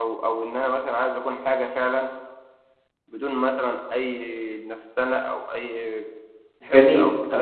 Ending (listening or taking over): taking over